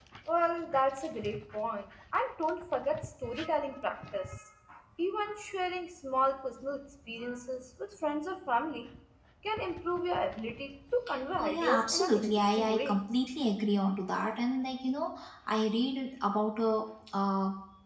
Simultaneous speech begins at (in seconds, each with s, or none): 11.3 s